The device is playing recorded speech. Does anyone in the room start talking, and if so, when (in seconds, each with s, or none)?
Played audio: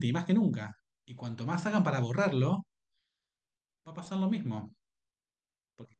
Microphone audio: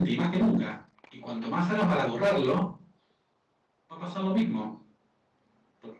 none